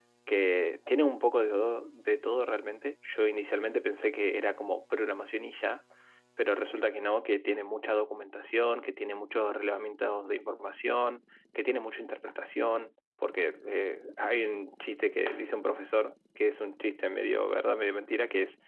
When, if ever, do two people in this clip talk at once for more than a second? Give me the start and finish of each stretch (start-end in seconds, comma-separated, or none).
none